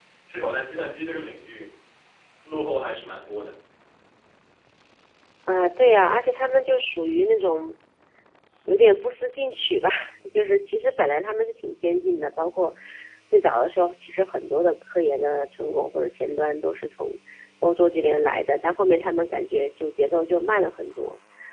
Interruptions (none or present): none